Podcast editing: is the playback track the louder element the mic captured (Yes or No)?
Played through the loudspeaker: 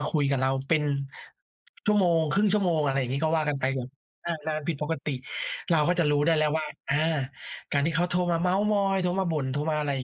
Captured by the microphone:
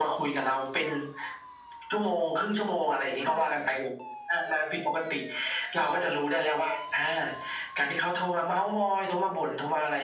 Yes